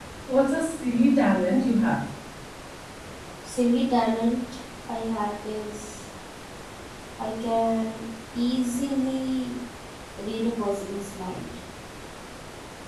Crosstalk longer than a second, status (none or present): none